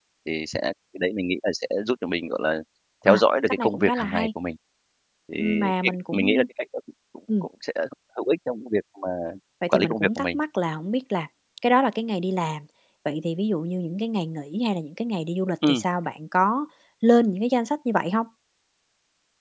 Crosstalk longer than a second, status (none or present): present